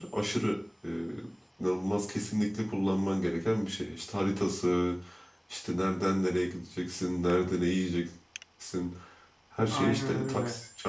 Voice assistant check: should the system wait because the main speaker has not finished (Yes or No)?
Yes